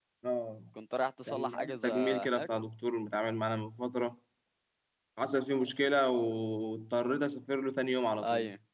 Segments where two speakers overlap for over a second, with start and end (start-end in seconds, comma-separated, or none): 1.3-2.5